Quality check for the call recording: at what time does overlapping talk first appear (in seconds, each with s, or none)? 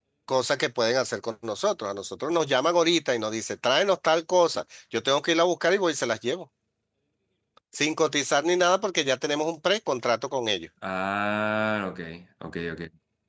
none